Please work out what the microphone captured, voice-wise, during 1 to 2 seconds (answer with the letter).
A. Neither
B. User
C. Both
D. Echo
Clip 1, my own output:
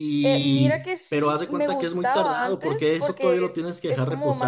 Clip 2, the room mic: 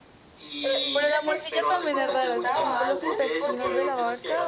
C